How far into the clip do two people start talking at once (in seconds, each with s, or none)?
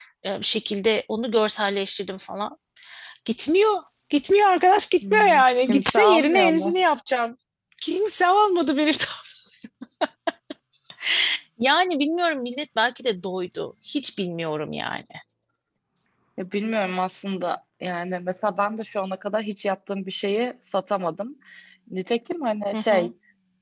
5.0 s